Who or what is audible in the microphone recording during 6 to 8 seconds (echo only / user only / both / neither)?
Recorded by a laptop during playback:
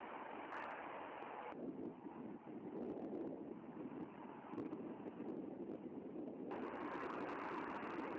neither